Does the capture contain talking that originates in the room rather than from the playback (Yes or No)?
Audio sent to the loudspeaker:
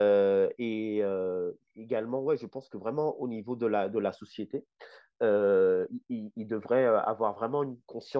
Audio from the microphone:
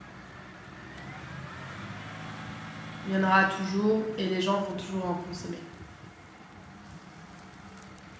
Yes